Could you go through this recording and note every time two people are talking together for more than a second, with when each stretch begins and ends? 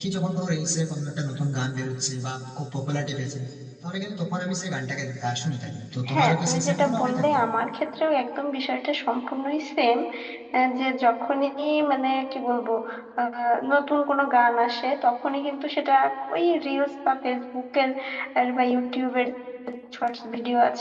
6.1-7.4

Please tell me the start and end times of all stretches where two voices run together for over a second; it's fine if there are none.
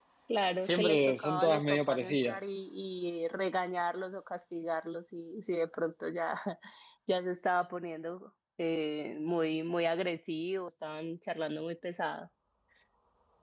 0.6-2.4

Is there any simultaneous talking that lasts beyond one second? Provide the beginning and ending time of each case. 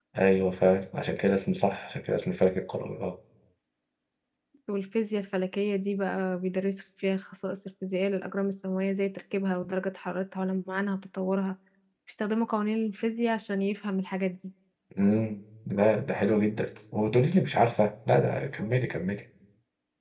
none

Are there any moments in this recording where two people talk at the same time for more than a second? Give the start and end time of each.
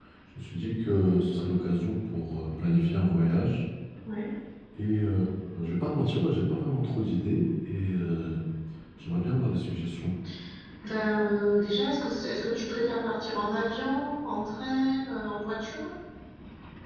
none

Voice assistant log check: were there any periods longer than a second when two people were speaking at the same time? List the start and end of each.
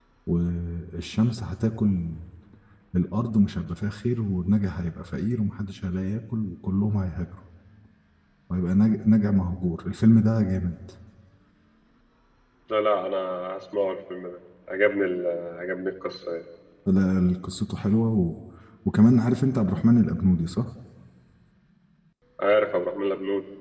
none

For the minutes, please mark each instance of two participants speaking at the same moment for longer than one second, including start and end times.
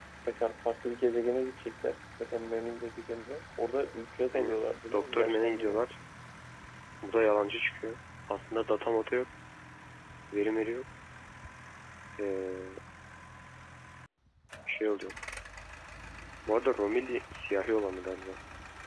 4.3-5.8

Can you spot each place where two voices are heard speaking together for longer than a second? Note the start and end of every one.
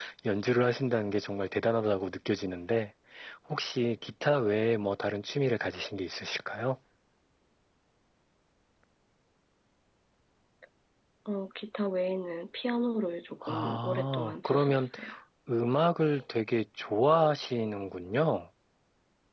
13.4-14.9

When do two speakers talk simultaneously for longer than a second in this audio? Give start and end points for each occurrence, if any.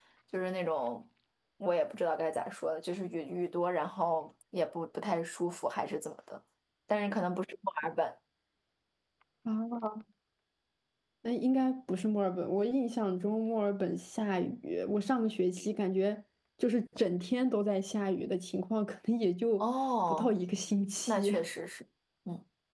none

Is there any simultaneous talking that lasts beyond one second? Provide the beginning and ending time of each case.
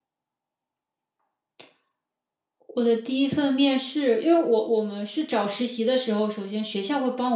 none

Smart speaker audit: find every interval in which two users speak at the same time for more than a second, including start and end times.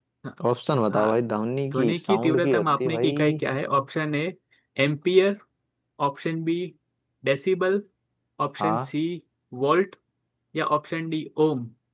1.7-3.4

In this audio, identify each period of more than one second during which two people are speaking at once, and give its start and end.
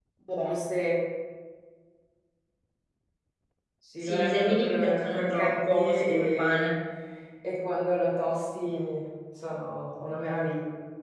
4.0-6.7

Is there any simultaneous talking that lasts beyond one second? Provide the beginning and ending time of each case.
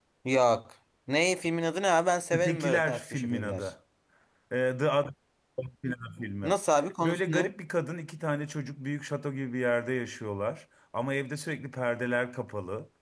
2.3-3.7

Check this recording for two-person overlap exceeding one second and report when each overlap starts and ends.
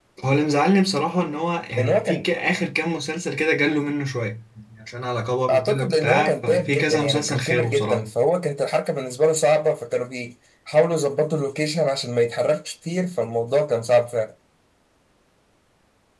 5.5-8.1

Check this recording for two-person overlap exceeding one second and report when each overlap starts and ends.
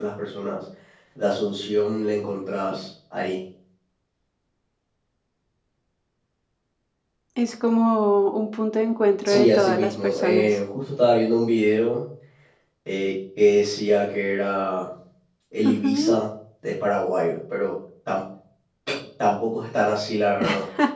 9.2-10.6

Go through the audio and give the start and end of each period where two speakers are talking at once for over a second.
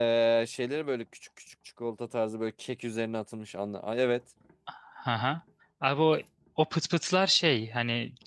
none

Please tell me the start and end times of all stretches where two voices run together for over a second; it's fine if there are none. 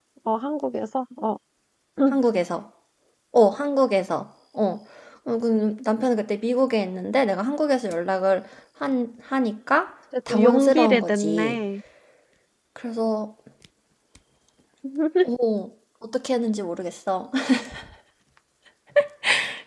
10.3-11.6

